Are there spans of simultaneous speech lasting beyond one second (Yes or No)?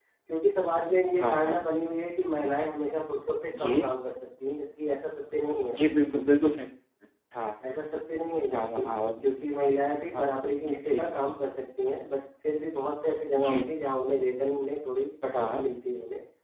No